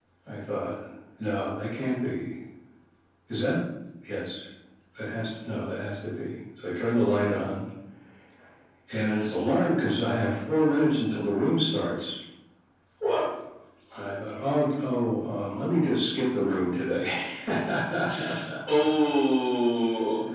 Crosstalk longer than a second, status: none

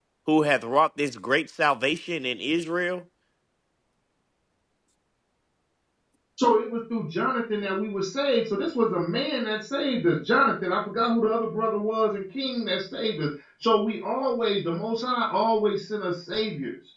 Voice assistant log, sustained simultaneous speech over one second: none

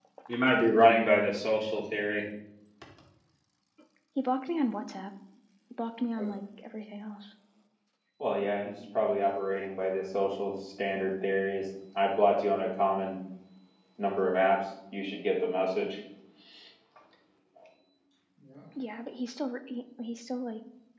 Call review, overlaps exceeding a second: none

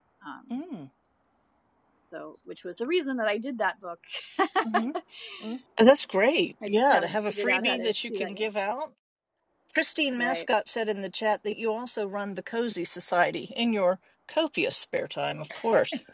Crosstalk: present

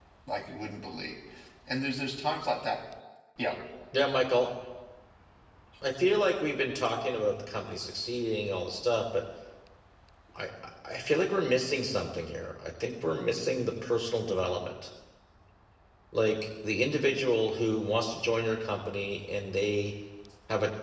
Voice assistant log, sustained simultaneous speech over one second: none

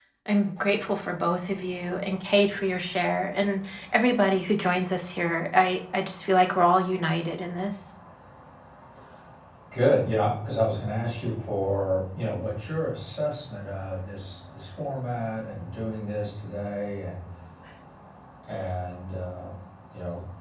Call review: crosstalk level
none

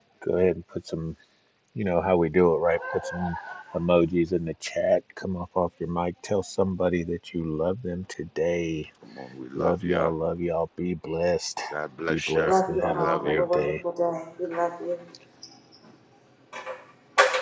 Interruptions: present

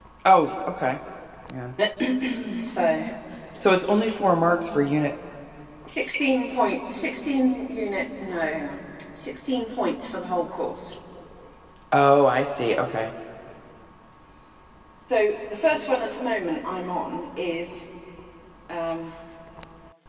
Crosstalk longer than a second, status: none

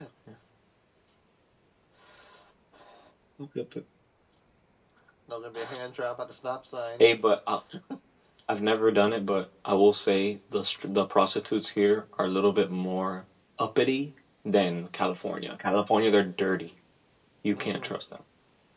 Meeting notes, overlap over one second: none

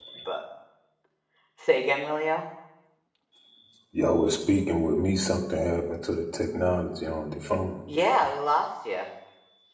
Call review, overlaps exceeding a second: none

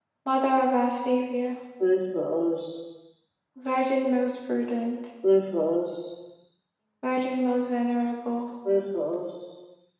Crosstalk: none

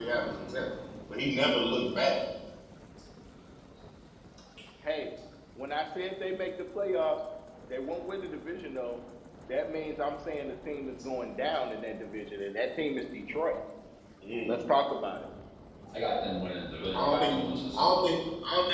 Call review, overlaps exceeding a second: present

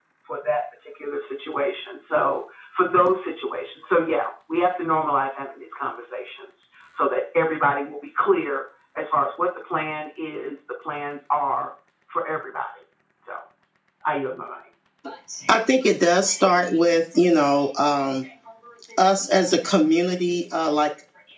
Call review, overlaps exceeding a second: none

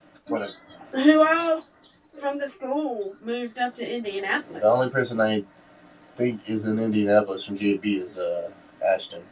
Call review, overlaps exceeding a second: none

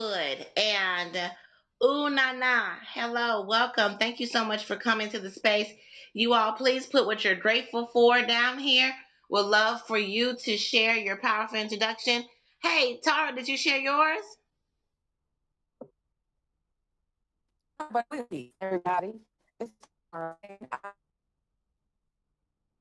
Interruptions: none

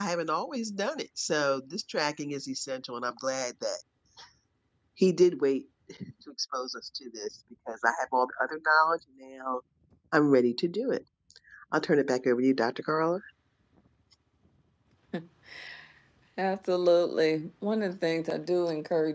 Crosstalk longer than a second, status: none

